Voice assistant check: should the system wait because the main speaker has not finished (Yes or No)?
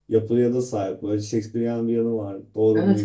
No